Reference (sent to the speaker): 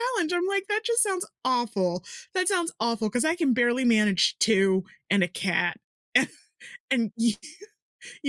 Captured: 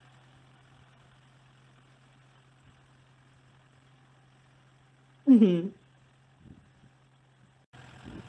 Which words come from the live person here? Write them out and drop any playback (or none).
Mhm.